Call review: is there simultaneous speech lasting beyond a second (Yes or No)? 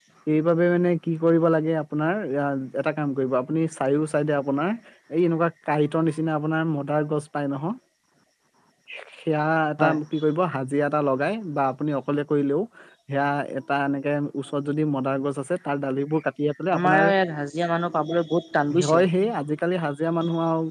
No